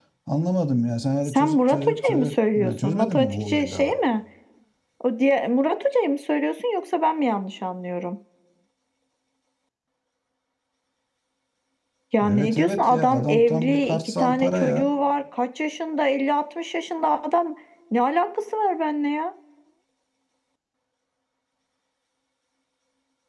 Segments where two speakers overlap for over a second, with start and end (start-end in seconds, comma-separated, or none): 1.2-3.9, 12.2-14.9